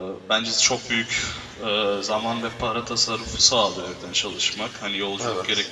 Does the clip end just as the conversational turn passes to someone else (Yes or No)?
No